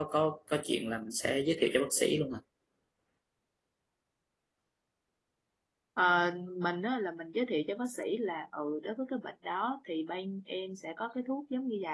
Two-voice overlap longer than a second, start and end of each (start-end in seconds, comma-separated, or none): none